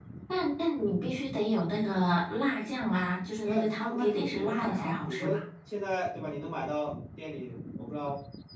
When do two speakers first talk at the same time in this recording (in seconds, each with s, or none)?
3.4 s